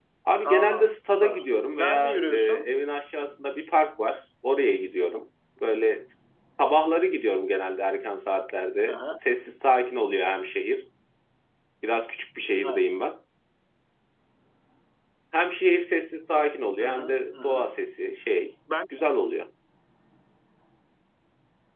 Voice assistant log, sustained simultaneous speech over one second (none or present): present